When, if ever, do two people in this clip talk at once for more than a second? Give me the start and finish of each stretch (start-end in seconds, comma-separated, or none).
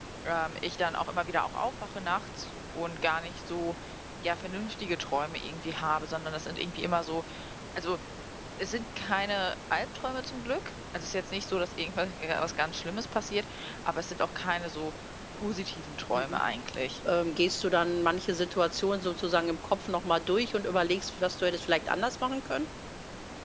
none